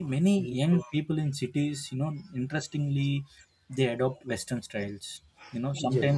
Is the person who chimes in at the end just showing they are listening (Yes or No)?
Yes